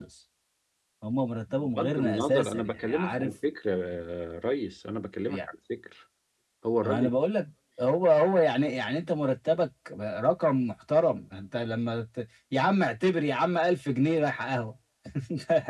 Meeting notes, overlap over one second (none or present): present